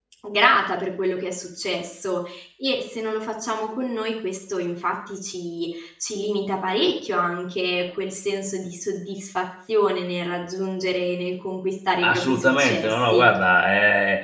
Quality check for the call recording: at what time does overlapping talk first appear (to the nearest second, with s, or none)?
12 s